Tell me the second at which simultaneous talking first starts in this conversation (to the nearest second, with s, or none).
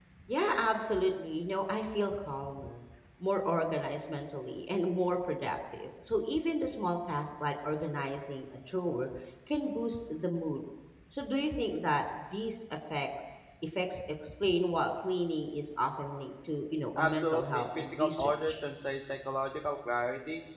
17 s